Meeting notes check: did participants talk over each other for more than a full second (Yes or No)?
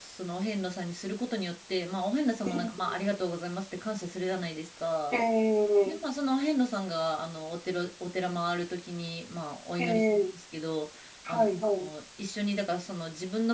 No